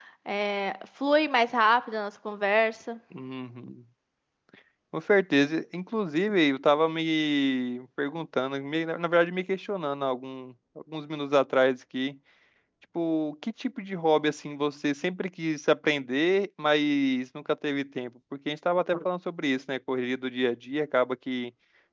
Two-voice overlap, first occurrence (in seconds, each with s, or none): none